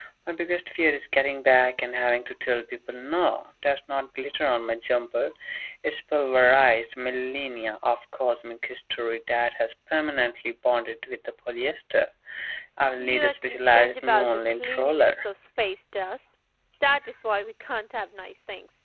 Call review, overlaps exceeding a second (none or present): present